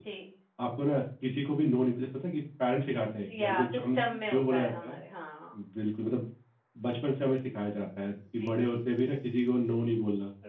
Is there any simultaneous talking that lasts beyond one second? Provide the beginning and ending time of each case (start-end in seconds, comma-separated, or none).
3.3-5.0